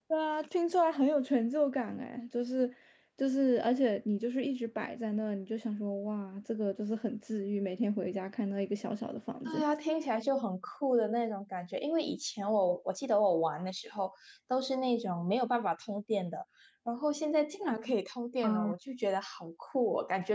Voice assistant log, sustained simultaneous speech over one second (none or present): none